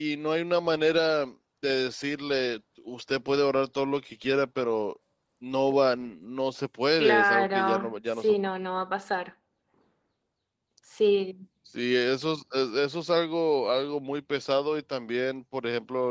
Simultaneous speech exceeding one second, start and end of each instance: 7.0-8.3

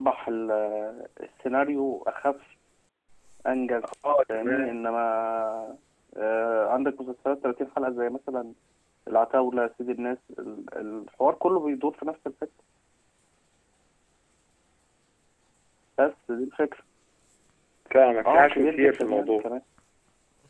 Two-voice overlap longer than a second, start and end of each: 18.3-19.5

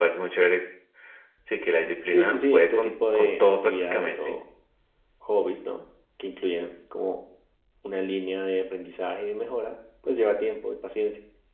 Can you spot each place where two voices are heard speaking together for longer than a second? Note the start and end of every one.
2.1-4.4

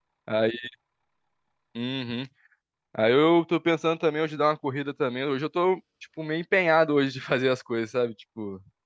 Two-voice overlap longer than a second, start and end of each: none

